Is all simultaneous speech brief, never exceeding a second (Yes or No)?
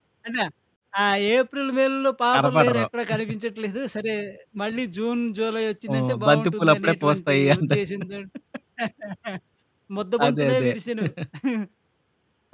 No